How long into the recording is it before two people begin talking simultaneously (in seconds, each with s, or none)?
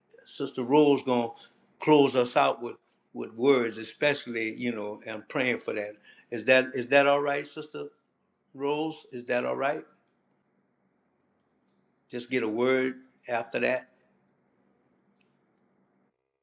none